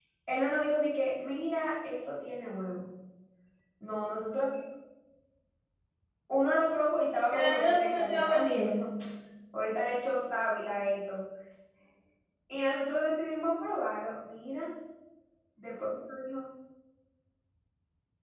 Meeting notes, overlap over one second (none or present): present